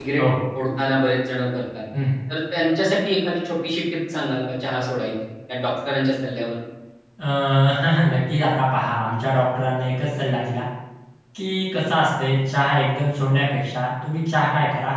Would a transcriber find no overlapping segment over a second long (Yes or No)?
Yes